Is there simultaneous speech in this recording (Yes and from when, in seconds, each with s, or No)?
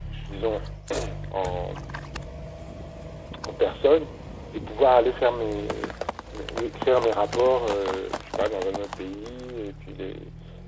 No